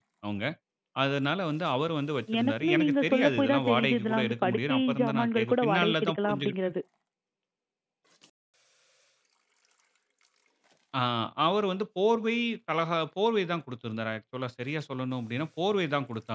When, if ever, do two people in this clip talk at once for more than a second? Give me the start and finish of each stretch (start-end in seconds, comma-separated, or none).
2.4-6.7